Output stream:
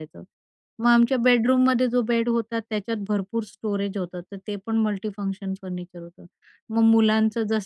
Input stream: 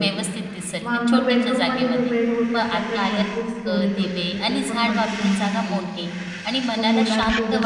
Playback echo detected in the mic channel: Yes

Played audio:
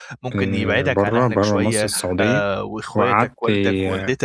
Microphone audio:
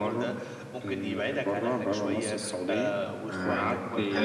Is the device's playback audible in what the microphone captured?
Yes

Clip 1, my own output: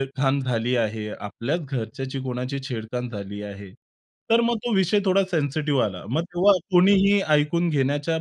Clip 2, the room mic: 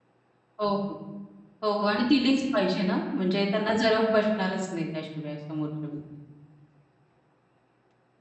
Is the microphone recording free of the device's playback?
Yes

